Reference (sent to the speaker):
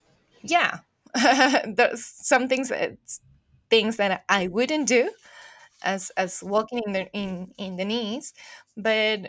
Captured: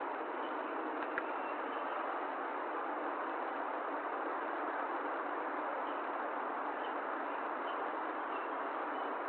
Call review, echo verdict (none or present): none